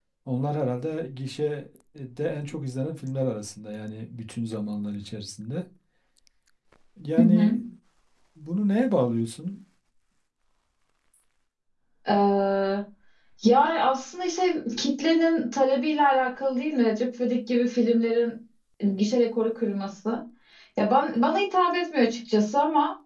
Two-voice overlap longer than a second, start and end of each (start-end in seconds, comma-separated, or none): none